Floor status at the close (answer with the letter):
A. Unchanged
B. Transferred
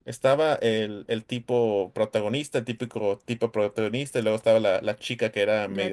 A